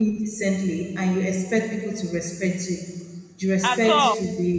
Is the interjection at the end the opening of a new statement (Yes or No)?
No